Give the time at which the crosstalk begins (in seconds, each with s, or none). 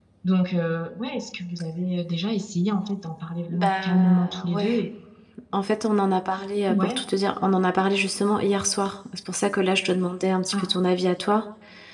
3.5 s